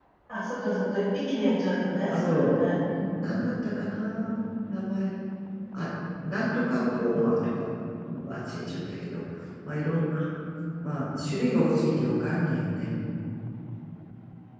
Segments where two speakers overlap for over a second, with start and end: none

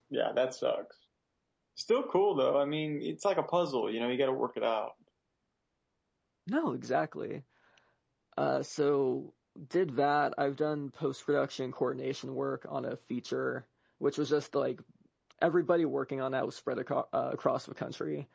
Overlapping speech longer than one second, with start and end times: none

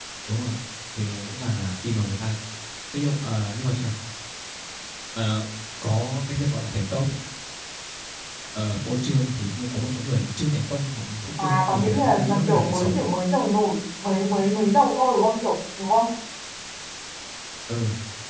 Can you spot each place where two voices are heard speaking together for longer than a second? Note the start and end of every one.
11.4-13.0

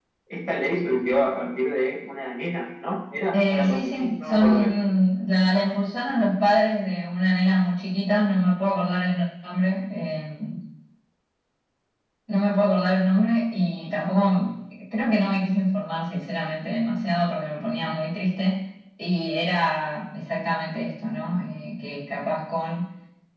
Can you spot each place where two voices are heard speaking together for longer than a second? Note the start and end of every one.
3.3-4.7

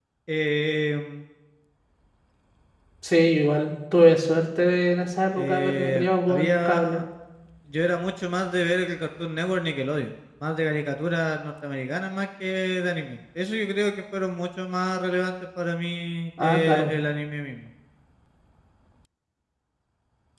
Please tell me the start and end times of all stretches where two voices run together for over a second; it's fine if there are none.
5.3-7.0

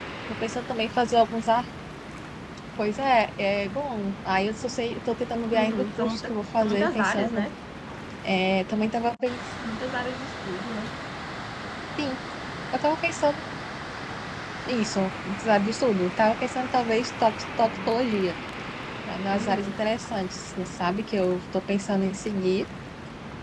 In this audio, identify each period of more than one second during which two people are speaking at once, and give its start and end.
5.5-7.5

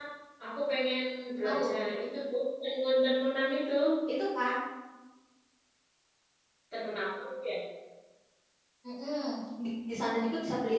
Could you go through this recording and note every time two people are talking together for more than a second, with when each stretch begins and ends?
none

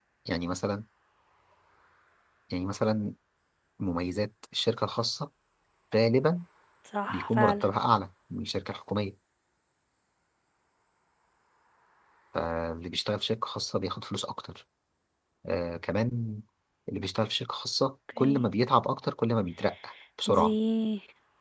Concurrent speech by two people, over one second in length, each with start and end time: none

